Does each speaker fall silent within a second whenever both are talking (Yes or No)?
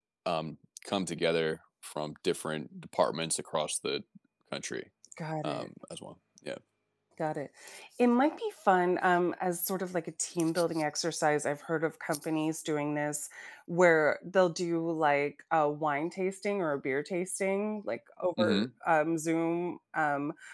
Yes